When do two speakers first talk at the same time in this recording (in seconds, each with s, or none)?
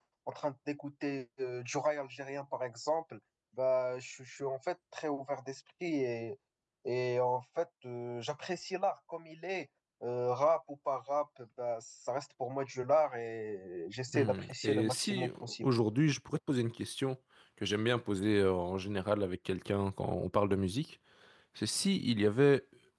14.1 s